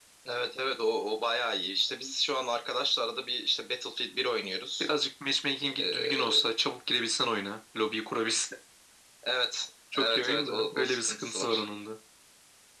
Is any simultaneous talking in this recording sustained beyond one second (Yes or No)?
Yes